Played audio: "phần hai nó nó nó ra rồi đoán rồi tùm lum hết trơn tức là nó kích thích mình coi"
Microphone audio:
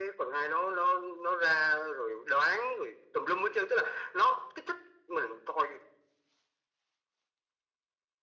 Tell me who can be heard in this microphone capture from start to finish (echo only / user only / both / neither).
echo only